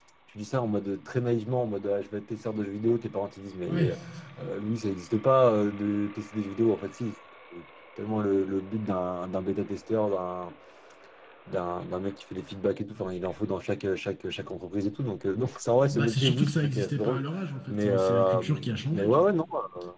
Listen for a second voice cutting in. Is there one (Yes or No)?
Yes